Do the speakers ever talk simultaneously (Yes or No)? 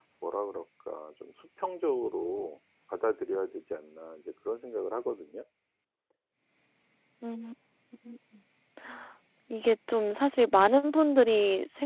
No